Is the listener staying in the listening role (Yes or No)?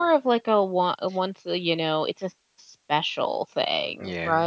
No